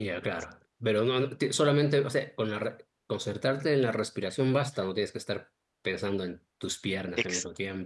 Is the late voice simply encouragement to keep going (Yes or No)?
No